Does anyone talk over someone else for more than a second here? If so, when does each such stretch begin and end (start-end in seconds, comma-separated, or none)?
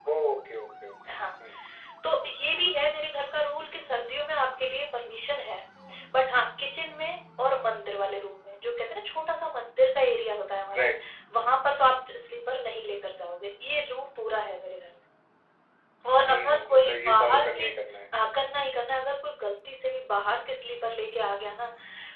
16.3-17.8